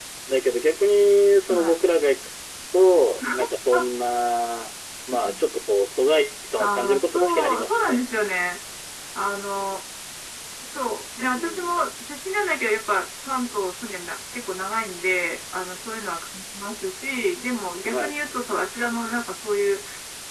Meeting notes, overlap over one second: present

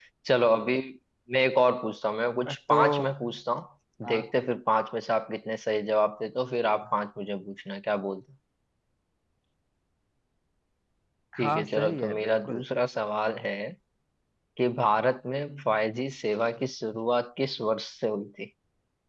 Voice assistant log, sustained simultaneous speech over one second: present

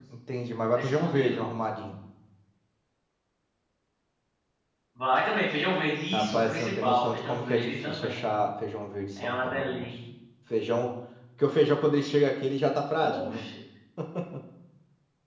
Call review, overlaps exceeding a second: present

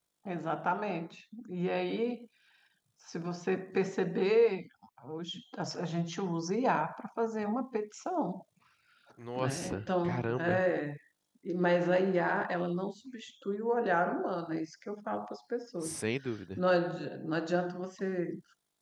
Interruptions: present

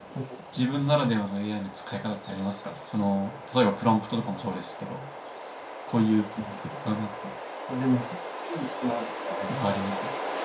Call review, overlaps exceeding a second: none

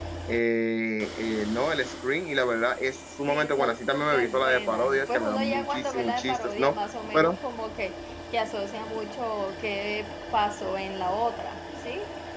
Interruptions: present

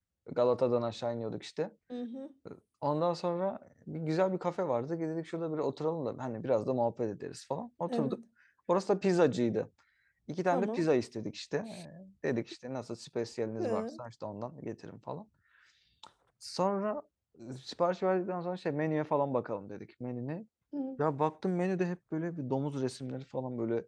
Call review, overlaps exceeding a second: none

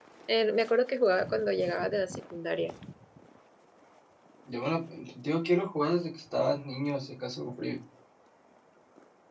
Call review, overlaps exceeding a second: none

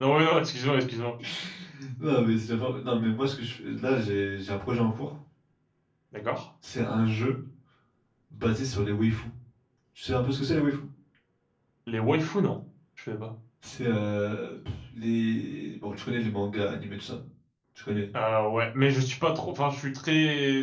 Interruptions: none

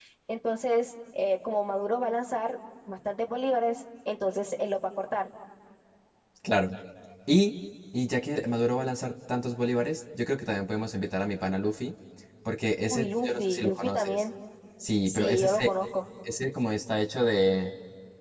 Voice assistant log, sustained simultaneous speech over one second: present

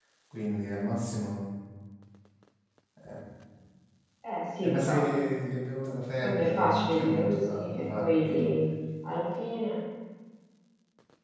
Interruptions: present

